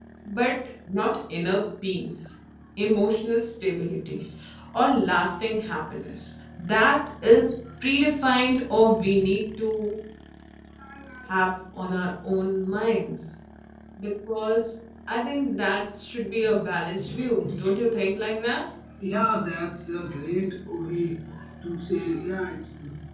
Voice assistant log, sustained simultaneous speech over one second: none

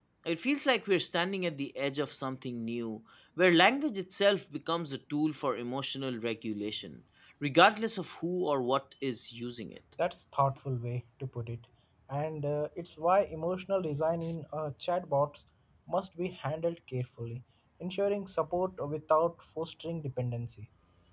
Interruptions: none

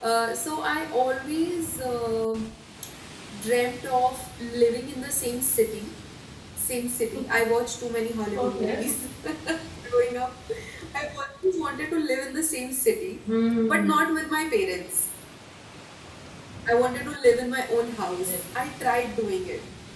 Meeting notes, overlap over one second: none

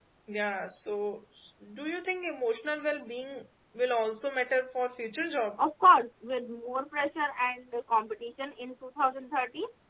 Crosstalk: none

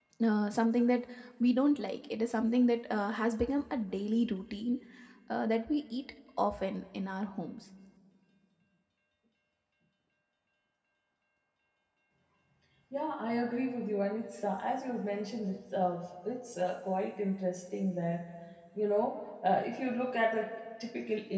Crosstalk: none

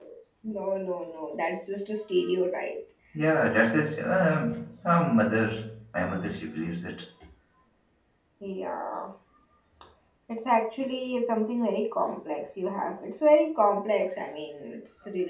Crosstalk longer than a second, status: none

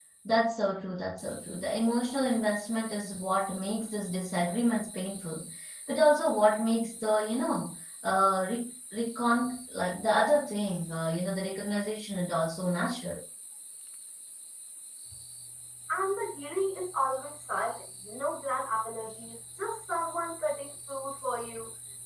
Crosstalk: none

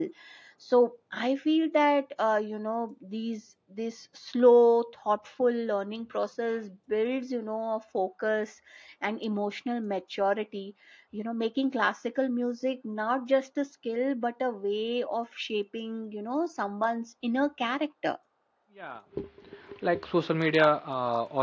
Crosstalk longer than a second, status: none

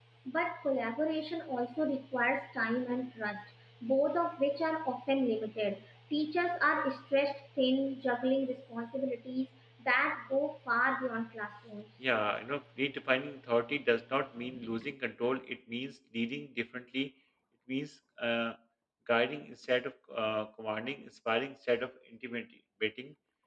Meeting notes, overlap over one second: none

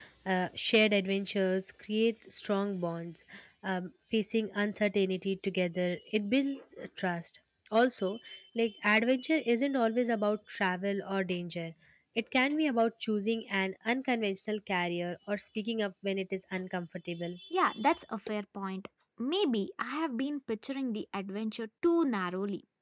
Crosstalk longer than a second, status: none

